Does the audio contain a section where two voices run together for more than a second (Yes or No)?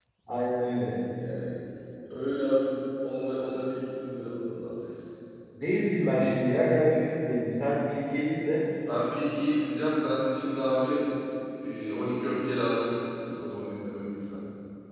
No